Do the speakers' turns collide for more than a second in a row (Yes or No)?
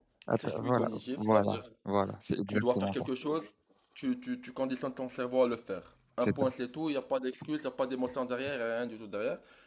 Yes